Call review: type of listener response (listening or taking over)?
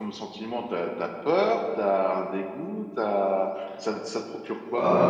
taking over